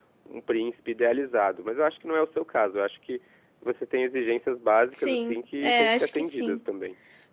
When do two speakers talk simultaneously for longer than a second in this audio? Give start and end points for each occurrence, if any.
4.9-6.6

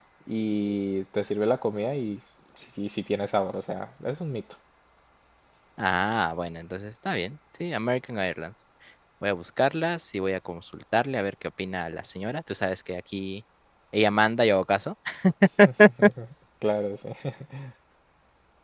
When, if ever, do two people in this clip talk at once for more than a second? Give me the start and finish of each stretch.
none

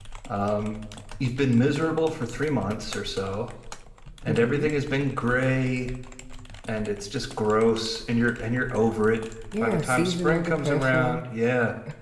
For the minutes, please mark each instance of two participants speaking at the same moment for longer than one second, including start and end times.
9.6-11.2

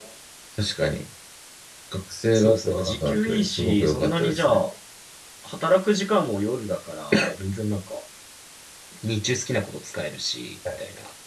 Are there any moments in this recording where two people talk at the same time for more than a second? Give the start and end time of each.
2.3-4.6

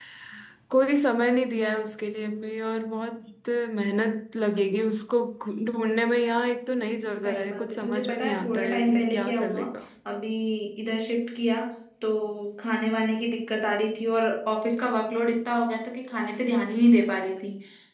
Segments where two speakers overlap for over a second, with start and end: 7.2-9.6

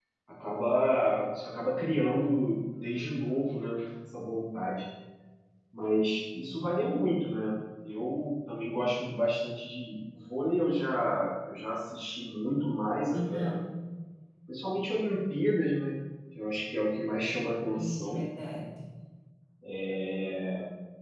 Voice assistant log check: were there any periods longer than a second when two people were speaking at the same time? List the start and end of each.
none

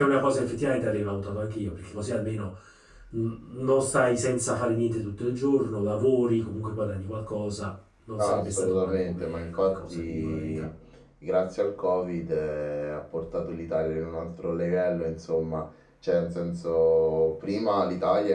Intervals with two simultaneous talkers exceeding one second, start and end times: 8.2-10.7

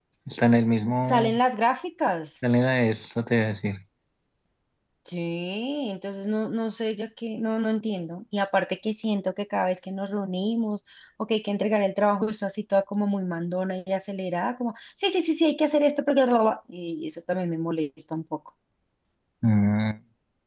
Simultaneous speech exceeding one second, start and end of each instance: none

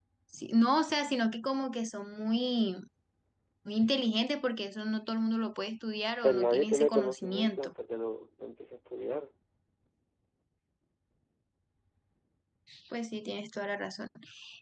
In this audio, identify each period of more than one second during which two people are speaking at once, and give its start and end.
6.2-7.7

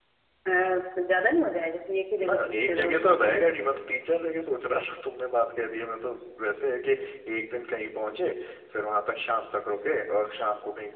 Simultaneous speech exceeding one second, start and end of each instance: 2.2-3.5

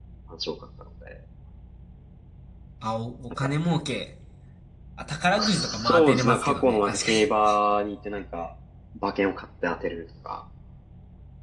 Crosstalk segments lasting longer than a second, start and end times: 5.4-7.1

